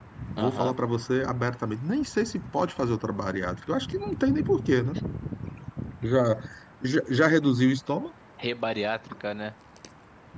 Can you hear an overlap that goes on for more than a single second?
No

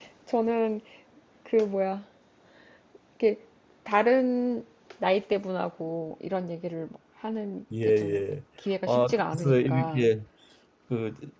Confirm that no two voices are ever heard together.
No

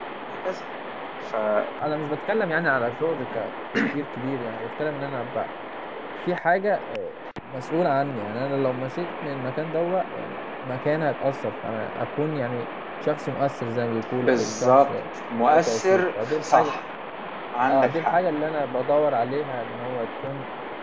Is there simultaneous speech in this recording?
Yes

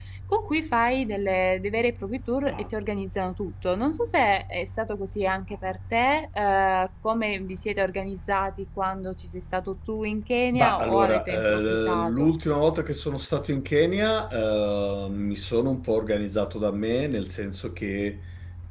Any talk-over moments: Yes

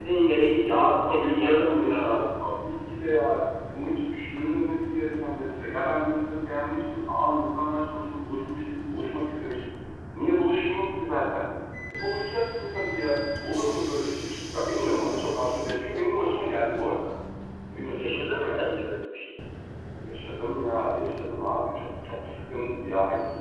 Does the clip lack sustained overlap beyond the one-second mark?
No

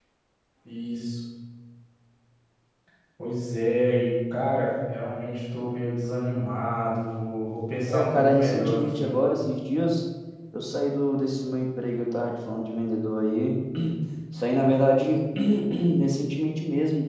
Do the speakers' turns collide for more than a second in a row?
Yes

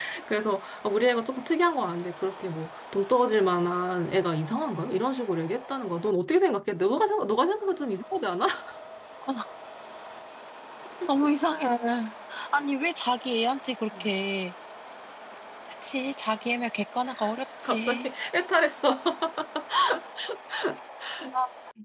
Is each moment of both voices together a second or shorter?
Yes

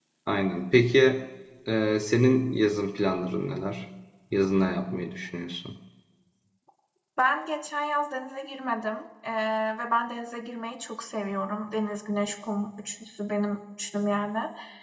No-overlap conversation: Yes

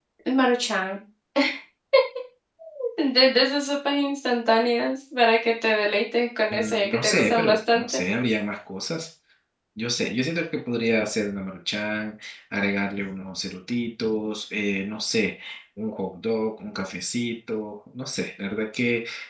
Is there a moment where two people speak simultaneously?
Yes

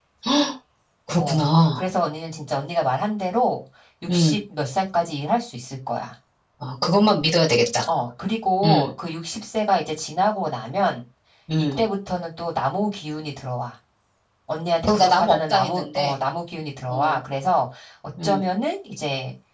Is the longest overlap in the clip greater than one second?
Yes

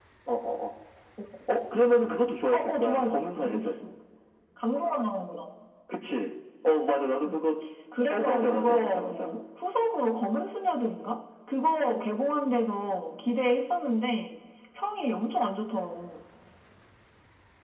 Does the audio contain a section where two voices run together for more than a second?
Yes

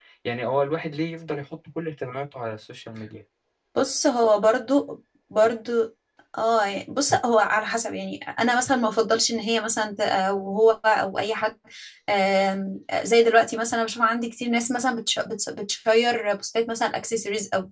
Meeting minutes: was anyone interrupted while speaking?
No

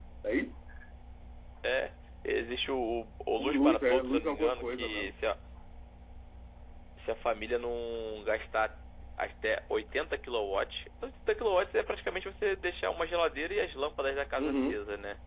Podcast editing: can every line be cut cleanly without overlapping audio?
No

